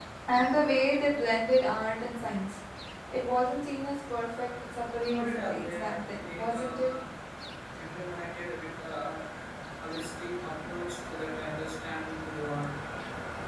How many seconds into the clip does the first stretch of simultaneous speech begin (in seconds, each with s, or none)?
5.0 s